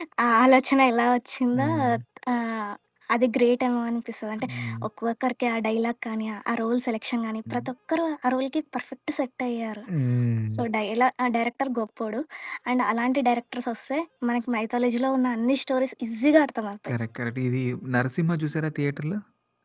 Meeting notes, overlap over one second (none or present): none